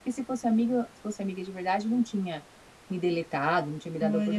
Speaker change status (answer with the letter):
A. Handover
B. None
A